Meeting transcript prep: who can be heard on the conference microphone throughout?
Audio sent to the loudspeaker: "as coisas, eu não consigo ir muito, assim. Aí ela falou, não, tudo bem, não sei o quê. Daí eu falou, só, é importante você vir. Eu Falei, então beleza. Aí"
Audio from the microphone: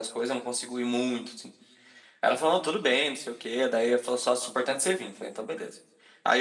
echo only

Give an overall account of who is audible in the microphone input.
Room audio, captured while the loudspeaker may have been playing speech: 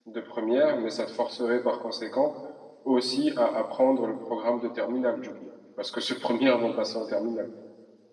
user only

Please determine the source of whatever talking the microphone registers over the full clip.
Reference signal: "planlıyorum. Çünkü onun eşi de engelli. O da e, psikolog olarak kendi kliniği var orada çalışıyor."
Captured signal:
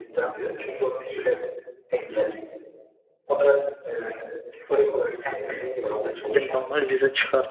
both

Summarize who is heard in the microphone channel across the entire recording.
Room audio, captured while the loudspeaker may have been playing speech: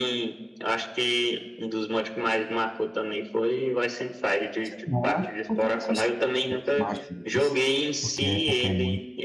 both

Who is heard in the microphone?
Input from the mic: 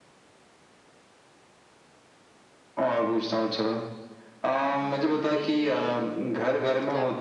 both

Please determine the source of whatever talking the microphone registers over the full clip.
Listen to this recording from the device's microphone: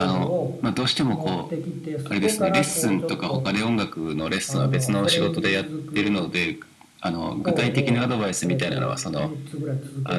both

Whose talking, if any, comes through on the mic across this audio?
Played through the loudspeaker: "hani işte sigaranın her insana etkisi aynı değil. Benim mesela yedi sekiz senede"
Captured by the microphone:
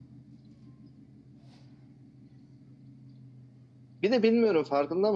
user only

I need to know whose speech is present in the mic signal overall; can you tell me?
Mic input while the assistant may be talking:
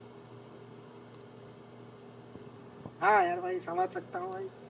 user only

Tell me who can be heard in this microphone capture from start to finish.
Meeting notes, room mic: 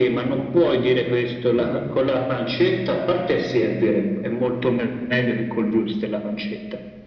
both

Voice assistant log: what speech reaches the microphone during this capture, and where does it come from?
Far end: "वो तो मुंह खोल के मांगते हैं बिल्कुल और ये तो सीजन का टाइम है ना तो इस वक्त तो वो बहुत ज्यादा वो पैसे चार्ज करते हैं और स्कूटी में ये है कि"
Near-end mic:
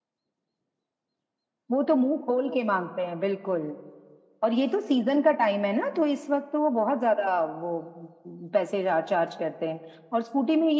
echo only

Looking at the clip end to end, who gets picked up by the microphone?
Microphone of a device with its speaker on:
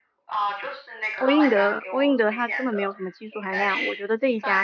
both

